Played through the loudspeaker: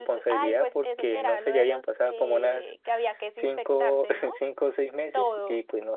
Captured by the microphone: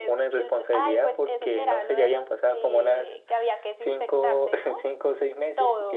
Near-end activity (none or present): none